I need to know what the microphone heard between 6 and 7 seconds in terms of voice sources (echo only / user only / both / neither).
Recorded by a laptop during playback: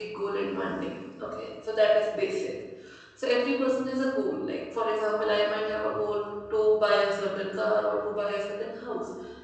user only